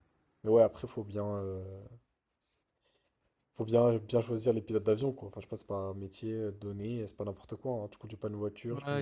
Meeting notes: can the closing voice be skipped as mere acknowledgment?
No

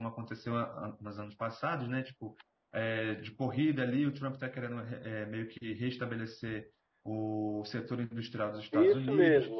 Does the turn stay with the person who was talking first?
No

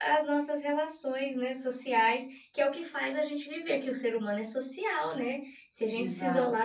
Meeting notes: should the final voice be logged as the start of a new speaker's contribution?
No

